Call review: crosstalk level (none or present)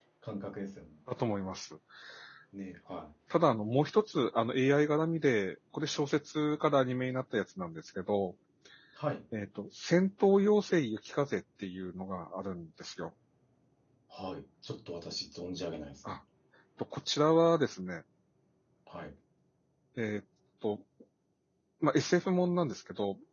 none